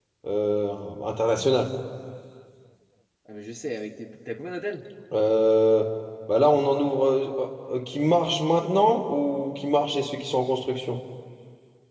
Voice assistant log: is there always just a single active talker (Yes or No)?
Yes